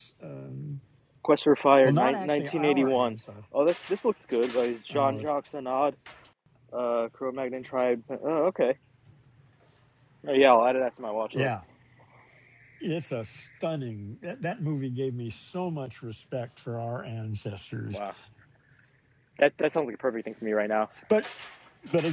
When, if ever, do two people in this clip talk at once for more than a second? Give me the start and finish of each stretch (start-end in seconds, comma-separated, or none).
1.8-3.2